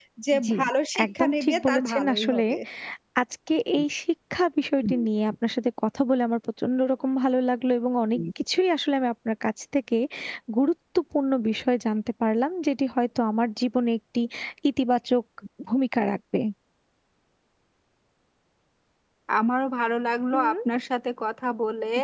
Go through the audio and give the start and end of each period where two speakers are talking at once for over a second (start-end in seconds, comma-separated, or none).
1.0-2.4